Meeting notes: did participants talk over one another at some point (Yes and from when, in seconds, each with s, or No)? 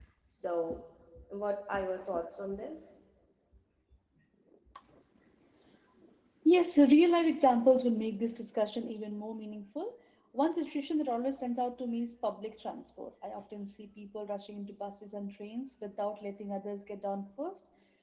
No